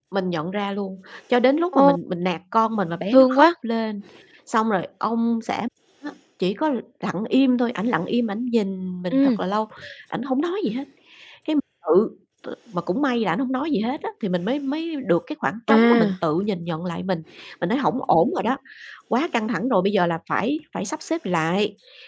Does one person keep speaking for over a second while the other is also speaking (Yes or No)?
No